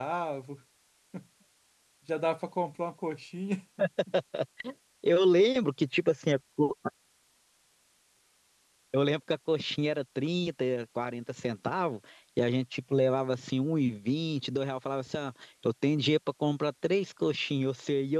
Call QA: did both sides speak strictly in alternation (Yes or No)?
Yes